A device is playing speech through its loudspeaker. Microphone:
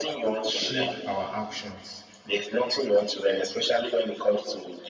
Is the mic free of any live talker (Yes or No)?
No